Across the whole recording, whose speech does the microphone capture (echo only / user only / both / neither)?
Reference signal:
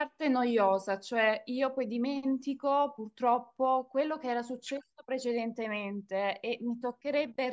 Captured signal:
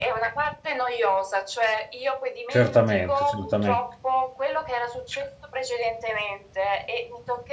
both